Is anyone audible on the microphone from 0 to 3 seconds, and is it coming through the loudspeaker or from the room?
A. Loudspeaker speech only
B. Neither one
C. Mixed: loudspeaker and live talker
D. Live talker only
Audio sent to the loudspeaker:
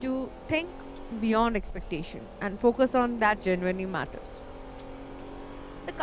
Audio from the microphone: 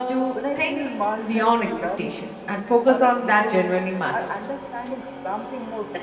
C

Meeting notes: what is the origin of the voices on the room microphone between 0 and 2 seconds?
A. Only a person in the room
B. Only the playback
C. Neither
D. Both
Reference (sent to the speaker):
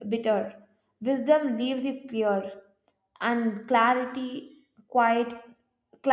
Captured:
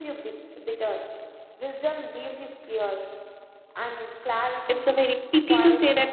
B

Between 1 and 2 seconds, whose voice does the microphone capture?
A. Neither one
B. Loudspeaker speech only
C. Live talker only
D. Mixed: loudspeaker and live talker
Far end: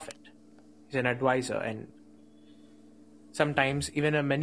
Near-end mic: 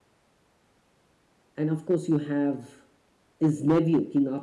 C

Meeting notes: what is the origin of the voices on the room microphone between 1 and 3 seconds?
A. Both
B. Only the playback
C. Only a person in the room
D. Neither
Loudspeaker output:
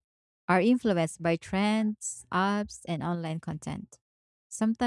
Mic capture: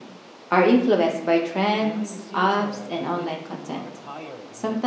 A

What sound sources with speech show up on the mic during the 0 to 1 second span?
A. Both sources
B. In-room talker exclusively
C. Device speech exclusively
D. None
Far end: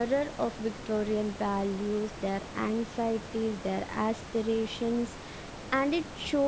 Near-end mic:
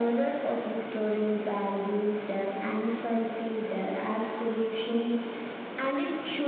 C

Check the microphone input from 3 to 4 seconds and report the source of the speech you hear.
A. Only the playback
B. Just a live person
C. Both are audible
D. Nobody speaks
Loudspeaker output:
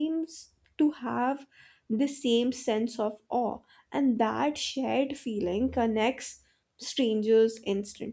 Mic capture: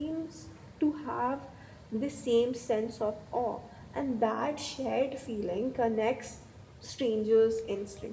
A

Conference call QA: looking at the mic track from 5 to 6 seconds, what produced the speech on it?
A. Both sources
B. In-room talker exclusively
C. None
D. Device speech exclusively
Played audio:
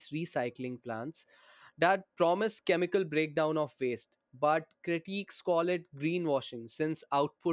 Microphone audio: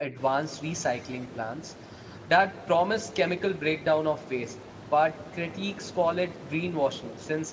D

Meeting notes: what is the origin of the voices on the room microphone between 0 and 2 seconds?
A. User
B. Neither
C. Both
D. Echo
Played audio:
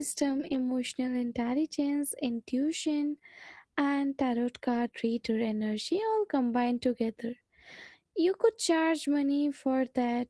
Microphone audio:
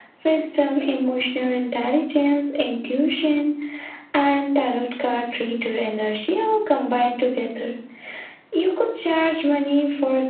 D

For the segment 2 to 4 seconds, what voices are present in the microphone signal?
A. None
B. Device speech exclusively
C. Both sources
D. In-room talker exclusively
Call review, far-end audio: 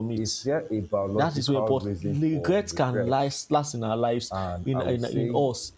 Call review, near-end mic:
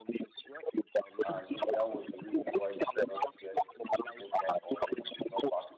C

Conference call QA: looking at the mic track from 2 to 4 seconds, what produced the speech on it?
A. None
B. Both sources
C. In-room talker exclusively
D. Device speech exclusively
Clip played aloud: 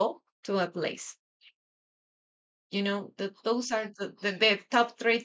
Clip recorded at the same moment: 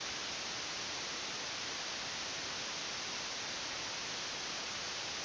A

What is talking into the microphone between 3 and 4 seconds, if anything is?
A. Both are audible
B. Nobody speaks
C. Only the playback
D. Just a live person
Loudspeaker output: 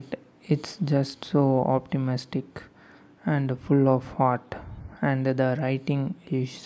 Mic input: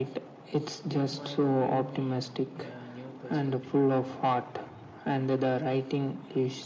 A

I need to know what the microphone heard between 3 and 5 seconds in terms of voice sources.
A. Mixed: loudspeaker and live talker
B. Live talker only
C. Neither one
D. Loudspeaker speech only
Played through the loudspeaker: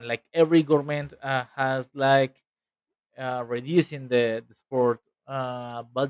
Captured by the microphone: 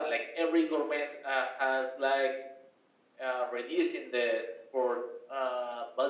D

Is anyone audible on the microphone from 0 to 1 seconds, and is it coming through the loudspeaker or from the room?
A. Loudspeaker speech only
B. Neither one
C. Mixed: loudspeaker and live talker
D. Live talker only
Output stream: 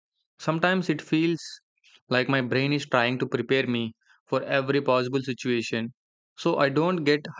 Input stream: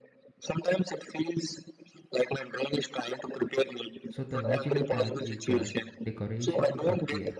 A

